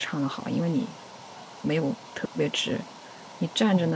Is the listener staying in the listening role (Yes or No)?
Yes